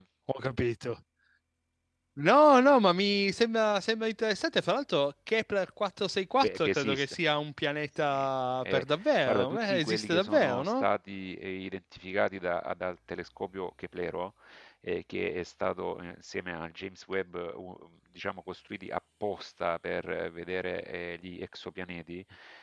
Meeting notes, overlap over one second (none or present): present